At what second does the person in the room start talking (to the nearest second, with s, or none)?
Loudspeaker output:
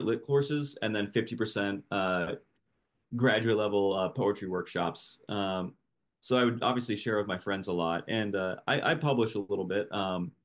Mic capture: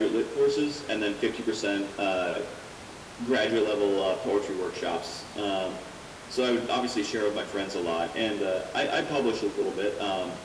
none